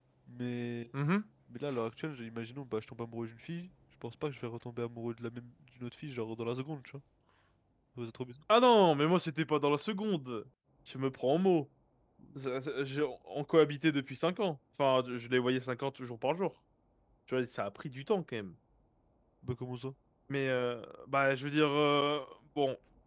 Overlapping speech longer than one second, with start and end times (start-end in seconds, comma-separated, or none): none